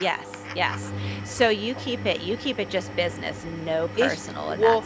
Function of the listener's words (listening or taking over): taking over